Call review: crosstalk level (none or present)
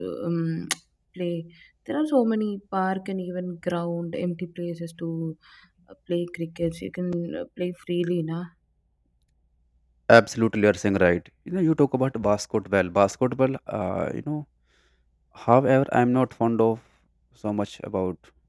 none